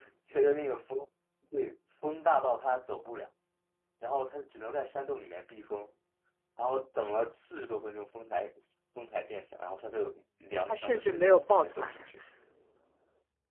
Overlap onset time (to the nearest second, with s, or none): 11 s